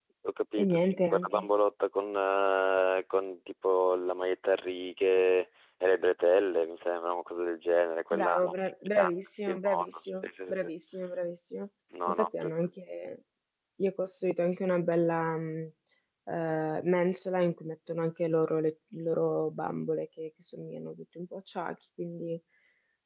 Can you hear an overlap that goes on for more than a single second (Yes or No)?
Yes